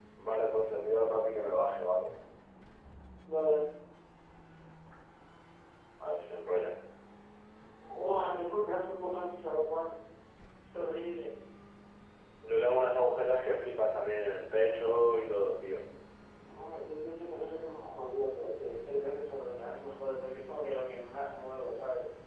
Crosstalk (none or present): none